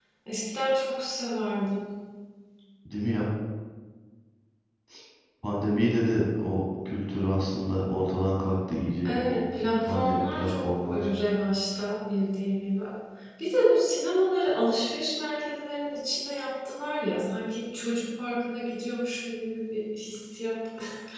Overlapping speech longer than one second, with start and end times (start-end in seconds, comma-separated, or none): 9.0-11.1